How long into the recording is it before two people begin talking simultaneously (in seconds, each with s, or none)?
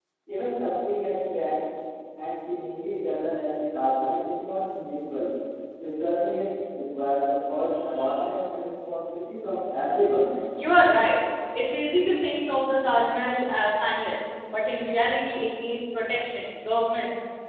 none